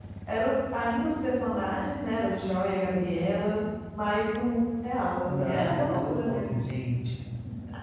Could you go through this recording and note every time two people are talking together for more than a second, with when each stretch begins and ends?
5.2-6.5

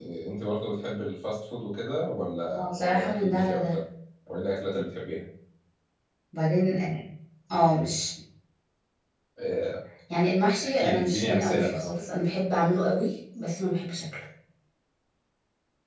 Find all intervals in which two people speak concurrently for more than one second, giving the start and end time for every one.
2.5-3.8, 10.6-11.9

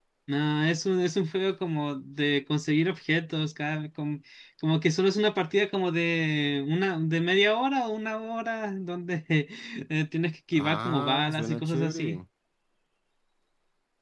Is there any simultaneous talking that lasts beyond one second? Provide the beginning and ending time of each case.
10.5-12.2

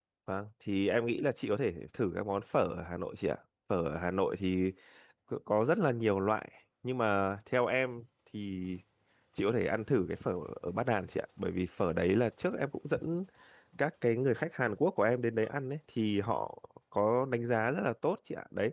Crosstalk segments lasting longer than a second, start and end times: none

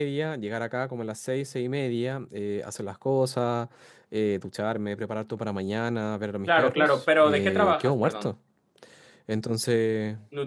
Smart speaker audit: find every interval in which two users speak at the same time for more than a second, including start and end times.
6.5-8.3

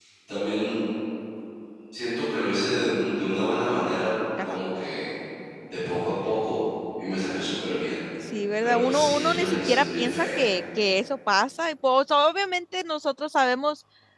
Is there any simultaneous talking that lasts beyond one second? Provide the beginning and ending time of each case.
8.6-10.4

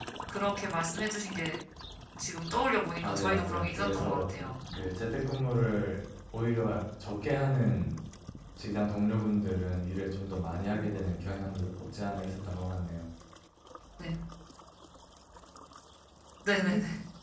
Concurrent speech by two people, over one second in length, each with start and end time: 3.0-4.3

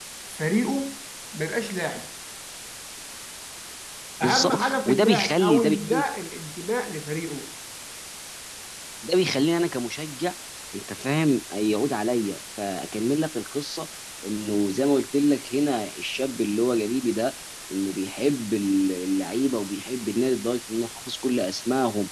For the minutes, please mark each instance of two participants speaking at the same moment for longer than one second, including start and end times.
4.2-6.0

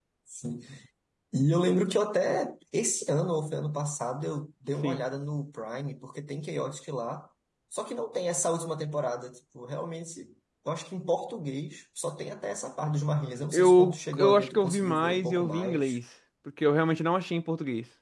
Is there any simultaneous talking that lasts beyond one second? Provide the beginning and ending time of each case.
13.5-16.0

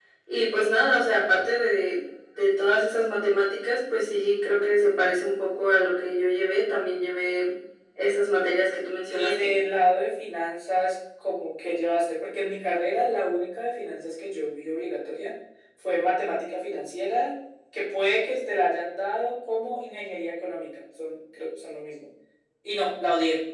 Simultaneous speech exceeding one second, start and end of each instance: none

